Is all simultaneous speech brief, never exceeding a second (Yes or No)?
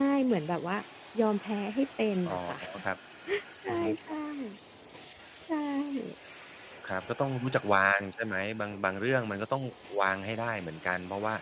Yes